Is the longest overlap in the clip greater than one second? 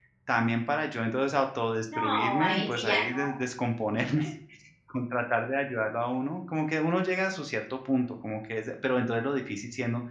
Yes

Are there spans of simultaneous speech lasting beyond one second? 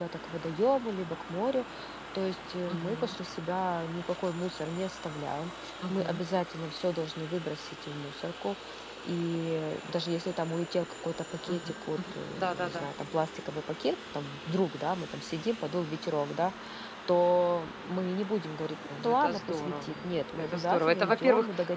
Yes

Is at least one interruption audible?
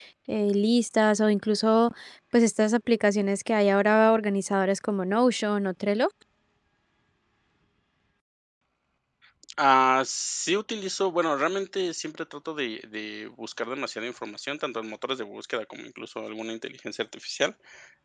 No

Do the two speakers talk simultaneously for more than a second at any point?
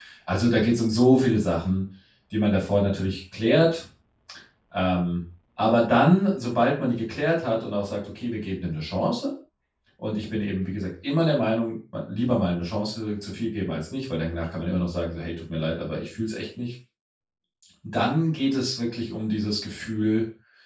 No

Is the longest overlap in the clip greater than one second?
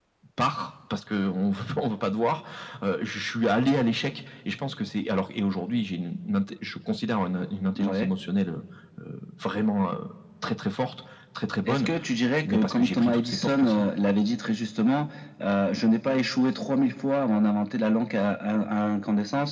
Yes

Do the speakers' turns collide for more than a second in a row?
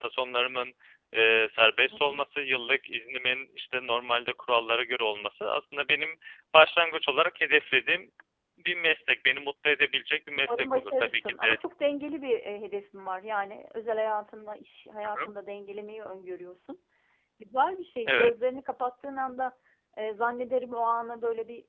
Yes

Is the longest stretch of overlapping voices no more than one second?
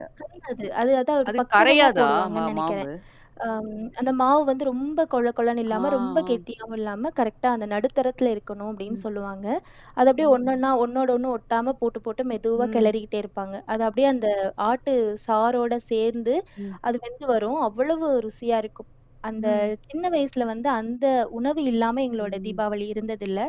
No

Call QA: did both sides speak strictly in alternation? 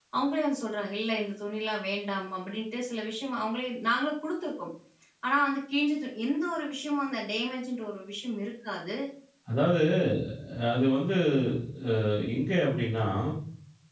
Yes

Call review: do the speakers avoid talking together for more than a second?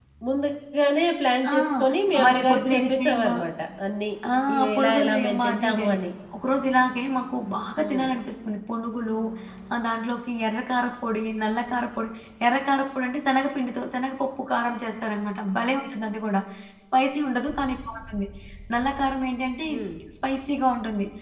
No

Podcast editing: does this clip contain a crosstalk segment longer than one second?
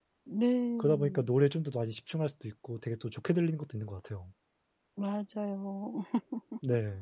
No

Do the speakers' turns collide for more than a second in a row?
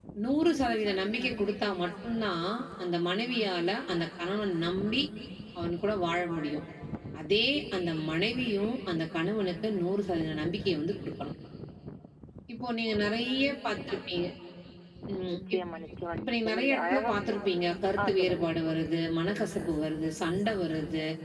Yes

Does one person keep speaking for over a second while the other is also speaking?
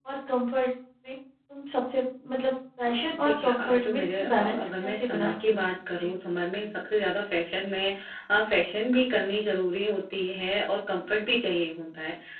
Yes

